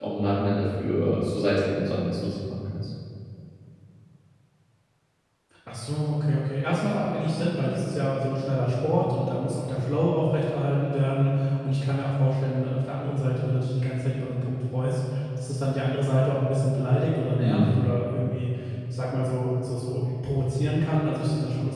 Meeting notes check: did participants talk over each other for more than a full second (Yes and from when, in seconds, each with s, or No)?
No